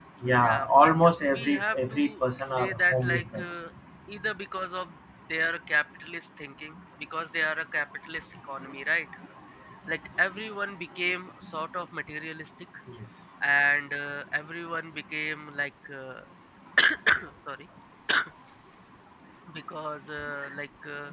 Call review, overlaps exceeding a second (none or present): present